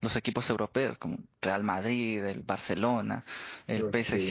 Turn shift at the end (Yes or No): No